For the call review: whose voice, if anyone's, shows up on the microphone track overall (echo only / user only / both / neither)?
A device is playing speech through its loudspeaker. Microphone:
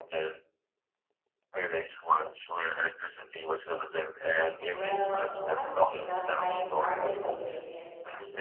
both